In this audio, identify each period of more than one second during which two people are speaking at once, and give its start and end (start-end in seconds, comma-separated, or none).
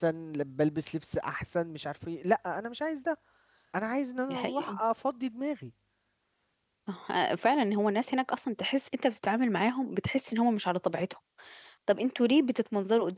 none